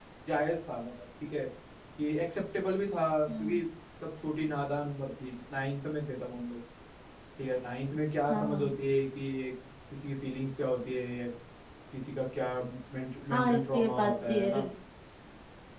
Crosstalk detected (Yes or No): Yes